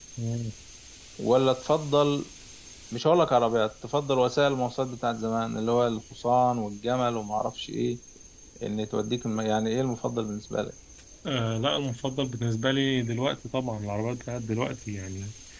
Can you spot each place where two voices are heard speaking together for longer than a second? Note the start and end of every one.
none

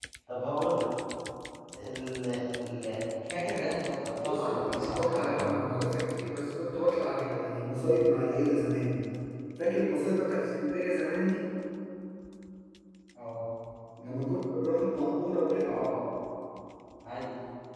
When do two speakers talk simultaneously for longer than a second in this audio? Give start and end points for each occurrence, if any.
4.2-5.6

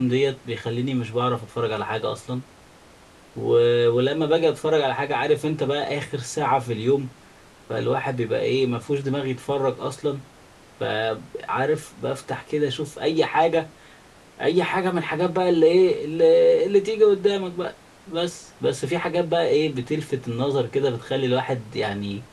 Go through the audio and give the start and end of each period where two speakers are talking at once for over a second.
none

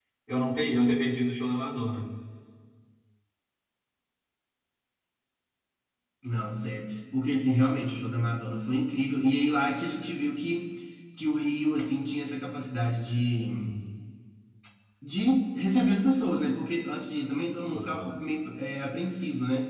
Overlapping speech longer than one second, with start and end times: none

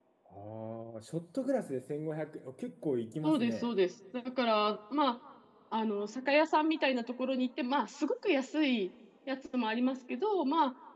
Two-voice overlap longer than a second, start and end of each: none

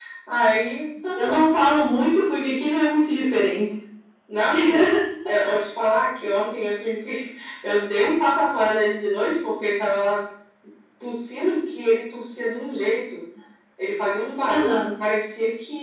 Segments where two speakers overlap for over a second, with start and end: none

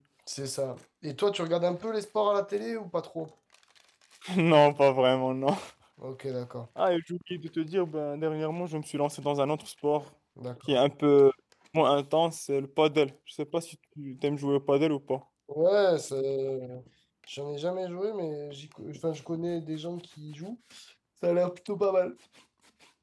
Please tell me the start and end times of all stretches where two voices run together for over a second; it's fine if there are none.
none

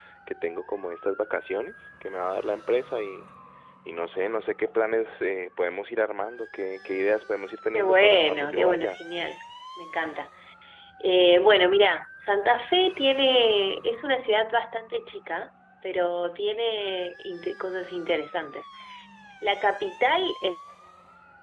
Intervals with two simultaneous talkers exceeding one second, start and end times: 7.7-9.0

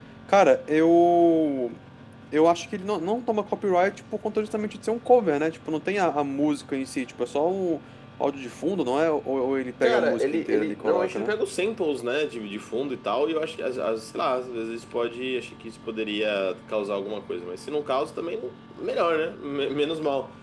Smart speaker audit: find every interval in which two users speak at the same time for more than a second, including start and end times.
9.8-11.3

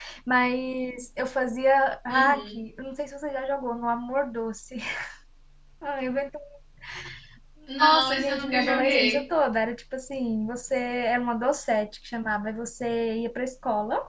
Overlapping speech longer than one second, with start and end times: 7.8-9.2

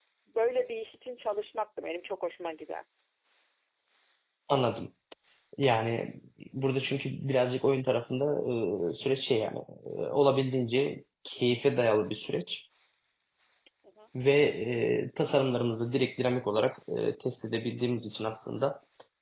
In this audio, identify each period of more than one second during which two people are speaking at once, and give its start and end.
none

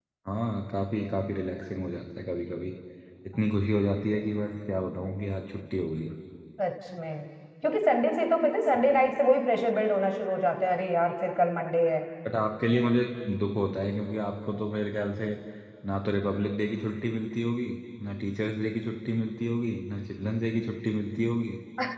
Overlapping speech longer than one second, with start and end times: none

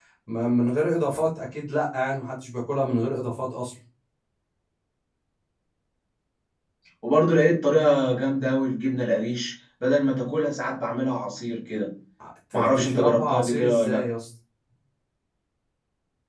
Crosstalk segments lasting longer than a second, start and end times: 12.5-14.1

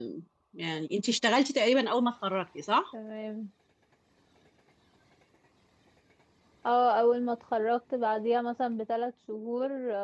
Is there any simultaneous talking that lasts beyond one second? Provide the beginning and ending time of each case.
none

